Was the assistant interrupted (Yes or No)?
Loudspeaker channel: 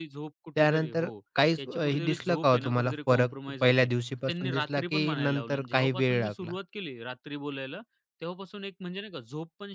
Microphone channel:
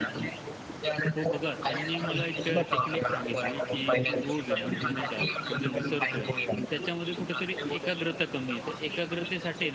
Yes